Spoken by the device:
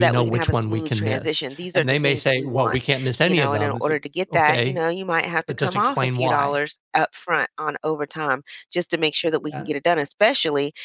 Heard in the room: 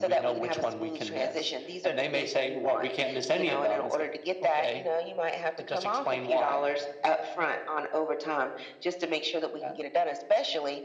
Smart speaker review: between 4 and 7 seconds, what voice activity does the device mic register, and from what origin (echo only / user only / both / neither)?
echo only